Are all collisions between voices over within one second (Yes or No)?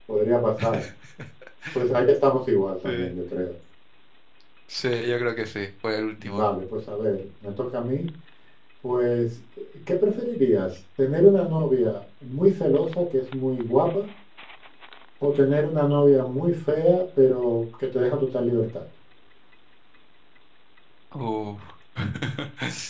Yes